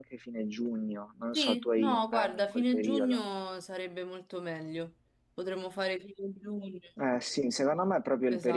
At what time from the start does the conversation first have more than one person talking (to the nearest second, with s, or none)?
1 s